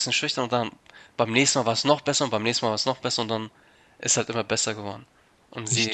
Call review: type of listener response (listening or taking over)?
listening